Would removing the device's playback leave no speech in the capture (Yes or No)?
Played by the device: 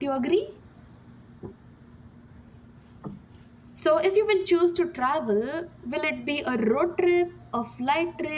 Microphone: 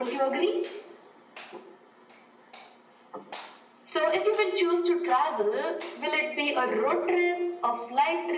Yes